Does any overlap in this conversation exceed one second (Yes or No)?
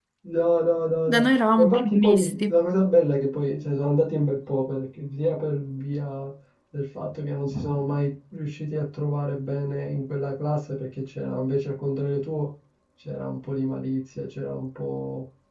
Yes